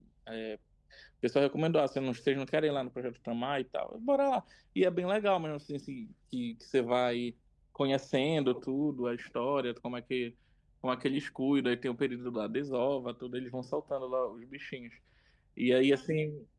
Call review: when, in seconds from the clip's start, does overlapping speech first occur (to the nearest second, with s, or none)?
none